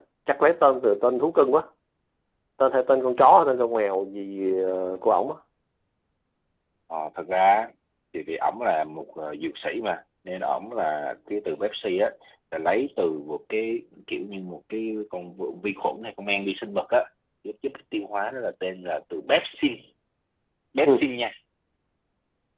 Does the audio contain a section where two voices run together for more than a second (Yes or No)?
No